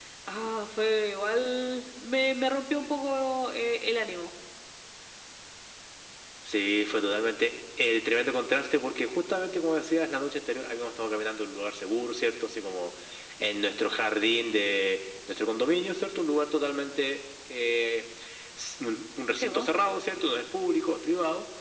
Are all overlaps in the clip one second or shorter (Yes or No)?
Yes